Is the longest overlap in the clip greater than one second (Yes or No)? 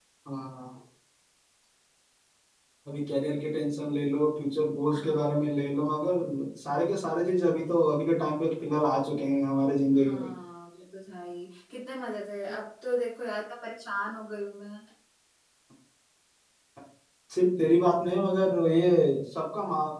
No